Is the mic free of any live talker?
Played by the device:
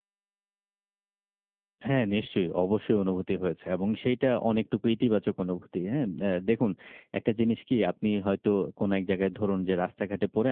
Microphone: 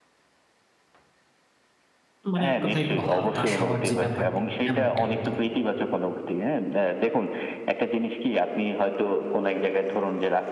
No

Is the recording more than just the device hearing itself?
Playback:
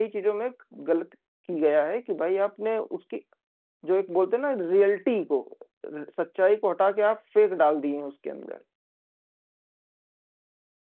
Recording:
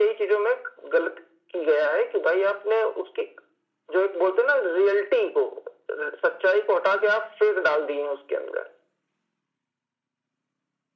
No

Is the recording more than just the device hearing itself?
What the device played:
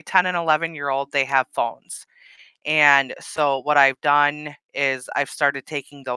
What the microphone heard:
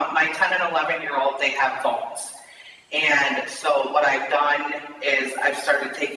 No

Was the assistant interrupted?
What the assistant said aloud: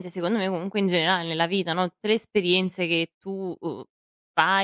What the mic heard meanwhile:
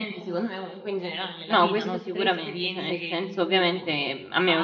Yes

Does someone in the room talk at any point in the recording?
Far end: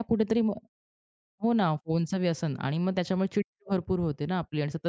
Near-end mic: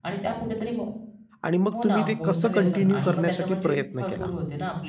Yes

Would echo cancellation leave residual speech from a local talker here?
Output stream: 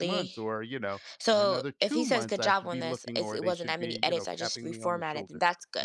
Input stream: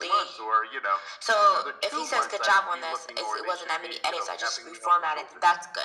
No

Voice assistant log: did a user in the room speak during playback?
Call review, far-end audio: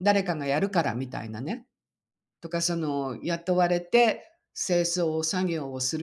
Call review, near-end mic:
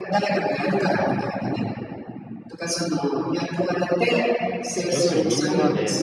Yes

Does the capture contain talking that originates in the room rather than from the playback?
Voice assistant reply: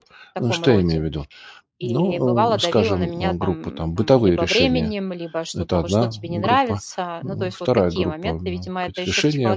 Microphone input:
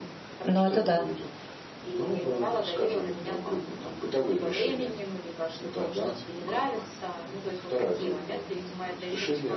Yes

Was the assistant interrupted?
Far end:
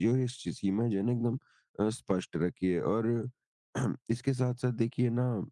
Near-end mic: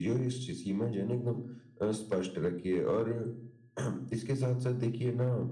No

